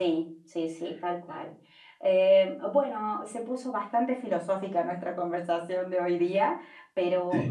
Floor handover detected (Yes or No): No